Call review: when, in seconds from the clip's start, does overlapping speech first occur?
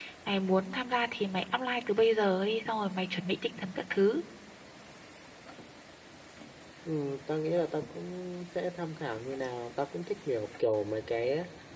none

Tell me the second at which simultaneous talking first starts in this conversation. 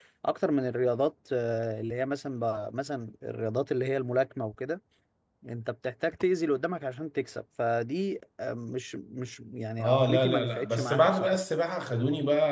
9.8 s

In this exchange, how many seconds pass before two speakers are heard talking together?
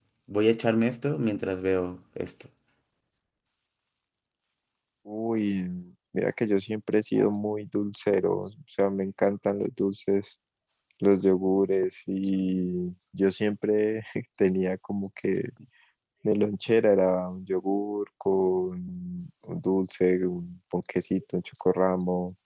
none

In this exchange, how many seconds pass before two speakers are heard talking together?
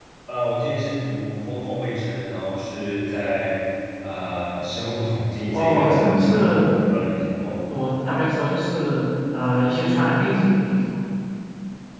5.5 s

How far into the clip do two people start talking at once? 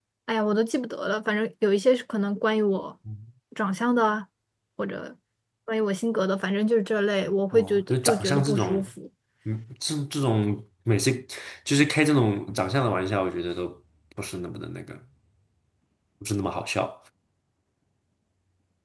7.5 s

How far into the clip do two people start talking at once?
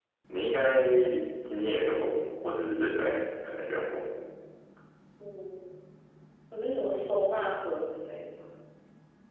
none

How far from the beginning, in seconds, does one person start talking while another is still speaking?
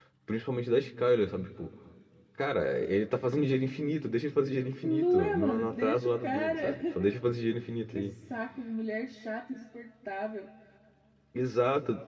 4.8 s

